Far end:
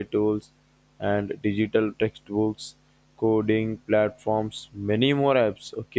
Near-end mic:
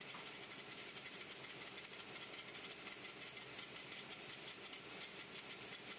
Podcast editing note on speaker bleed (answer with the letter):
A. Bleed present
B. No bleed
B